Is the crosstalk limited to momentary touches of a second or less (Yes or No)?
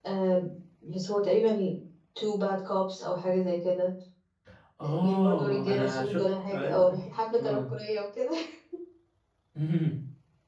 No